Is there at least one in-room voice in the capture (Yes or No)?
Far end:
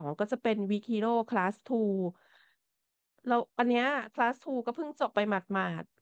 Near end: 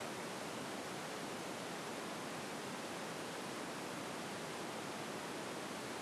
No